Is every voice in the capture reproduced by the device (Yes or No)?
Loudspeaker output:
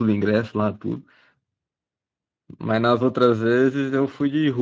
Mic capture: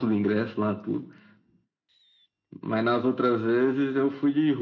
Yes